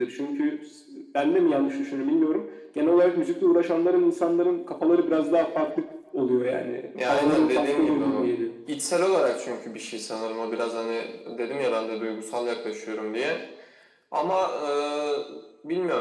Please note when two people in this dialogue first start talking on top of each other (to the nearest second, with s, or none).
7 s